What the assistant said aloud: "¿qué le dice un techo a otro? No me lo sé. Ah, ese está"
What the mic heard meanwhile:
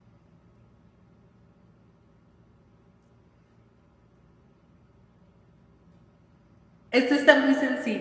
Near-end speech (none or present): present